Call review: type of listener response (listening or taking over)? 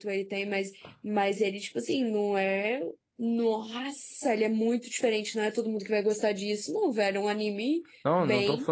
taking over